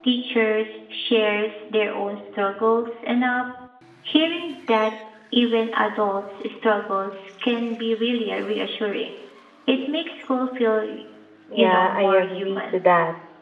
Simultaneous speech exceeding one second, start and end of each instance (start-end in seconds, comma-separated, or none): 11.6-12.8